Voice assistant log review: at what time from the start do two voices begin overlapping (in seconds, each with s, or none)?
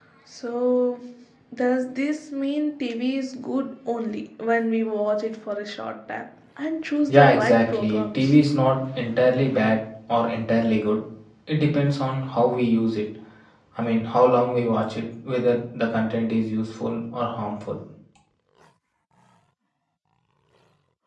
7.1 s